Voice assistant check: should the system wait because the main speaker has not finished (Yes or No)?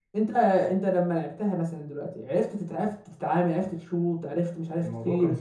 No